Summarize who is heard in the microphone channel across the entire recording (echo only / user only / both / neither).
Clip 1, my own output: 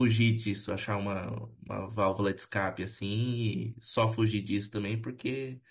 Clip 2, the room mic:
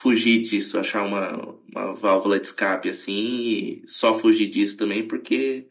echo only